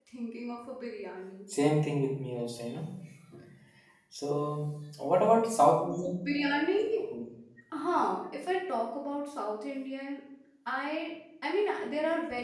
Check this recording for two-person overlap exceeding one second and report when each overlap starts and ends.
none

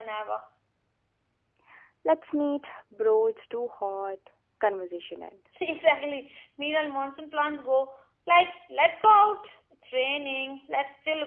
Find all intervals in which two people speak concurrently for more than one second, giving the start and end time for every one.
none

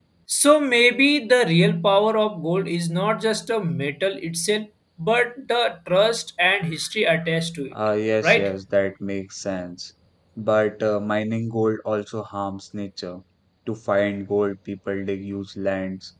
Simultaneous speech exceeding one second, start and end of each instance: none

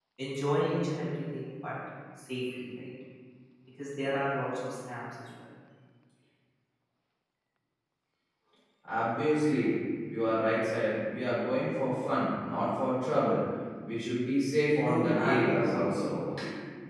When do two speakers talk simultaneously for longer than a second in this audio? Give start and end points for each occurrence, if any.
14.8-16.2

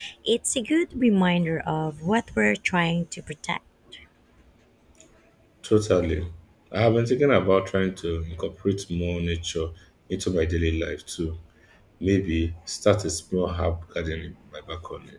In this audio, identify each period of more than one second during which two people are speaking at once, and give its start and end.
none

